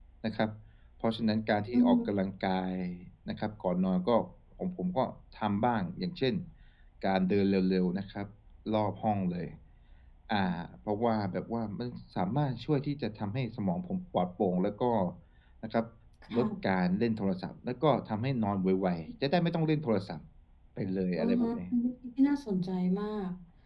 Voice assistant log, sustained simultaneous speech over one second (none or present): none